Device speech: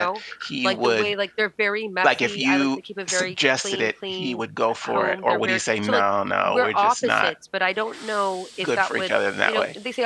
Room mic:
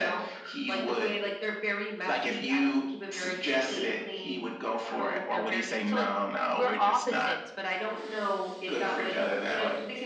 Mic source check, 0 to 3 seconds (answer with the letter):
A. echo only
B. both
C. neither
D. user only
A